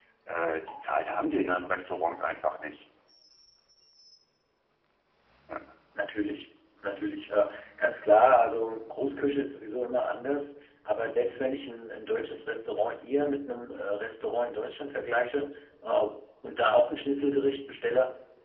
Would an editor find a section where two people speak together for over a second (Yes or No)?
No